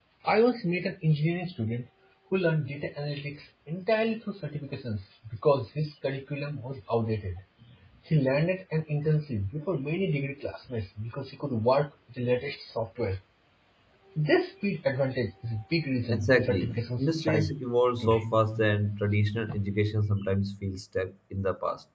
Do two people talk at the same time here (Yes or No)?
Yes